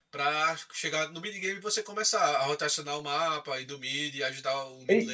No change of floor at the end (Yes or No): No